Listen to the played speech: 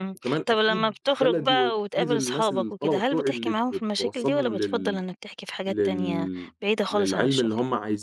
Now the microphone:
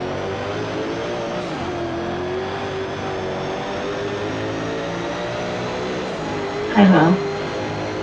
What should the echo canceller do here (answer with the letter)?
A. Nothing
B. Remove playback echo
A